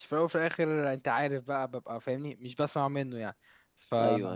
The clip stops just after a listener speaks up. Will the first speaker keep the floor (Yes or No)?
No